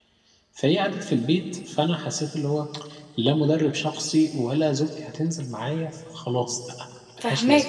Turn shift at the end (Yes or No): Yes